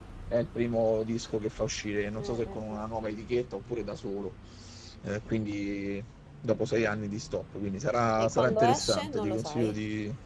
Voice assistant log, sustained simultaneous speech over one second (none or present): present